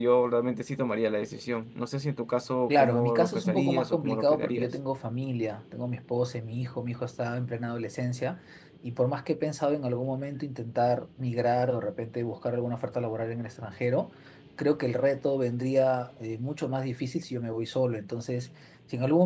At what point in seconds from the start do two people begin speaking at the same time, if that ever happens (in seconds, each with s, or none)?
2.7 s